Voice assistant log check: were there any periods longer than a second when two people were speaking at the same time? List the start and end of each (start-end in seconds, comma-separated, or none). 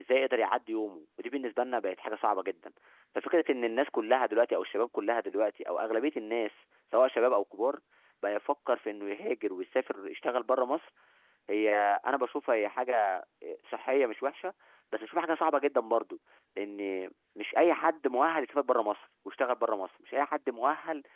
none